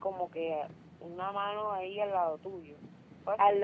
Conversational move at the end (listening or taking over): taking over